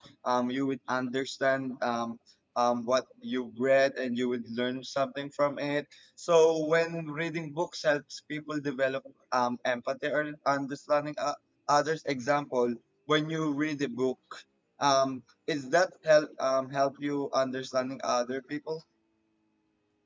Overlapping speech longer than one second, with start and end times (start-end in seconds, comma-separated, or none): none